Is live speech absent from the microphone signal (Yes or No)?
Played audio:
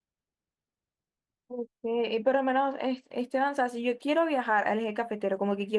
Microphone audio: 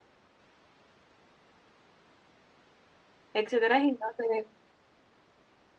No